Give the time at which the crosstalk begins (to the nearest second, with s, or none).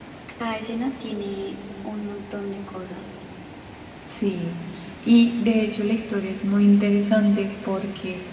none